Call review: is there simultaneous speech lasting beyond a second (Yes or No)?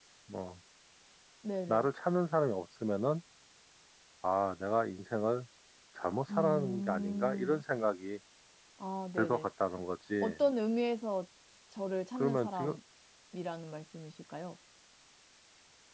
Yes